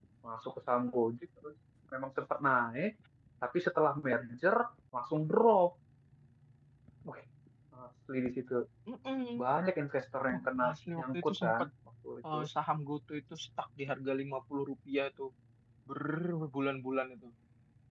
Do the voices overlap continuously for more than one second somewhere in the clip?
Yes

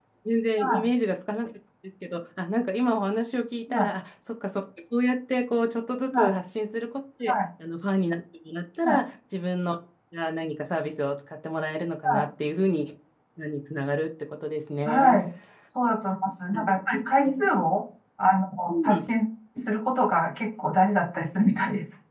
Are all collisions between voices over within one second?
Yes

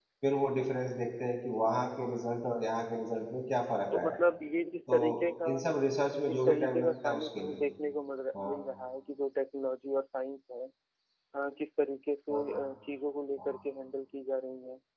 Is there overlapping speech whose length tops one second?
Yes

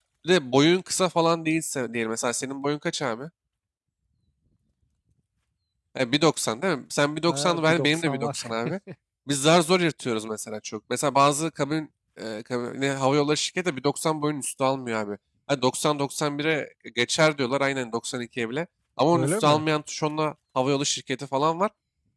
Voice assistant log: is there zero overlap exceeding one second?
No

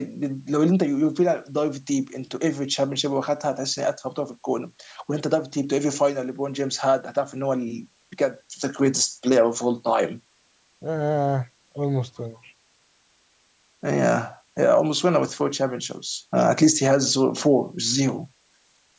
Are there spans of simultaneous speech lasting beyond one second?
No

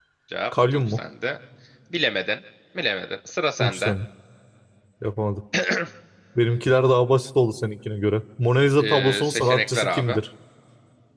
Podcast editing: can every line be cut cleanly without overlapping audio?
No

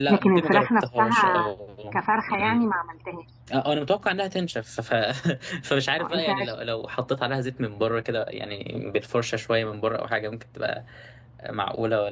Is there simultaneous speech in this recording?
Yes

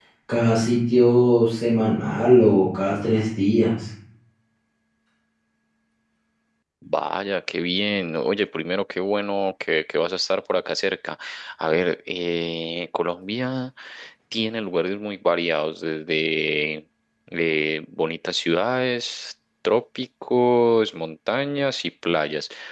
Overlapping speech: No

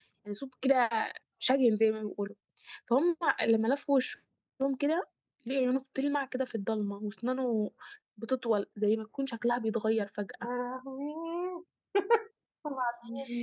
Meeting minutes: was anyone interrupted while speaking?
No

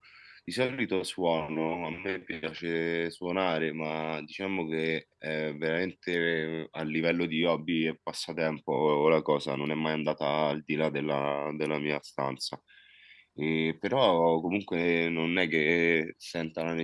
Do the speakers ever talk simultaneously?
No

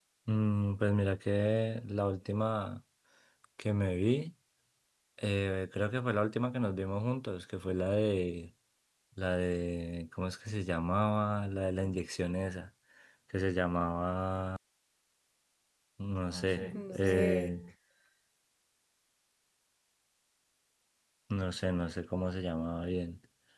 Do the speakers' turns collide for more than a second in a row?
Yes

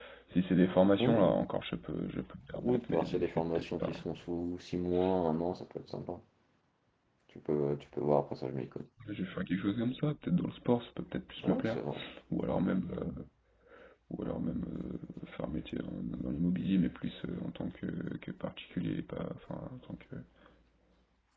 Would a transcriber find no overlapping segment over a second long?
No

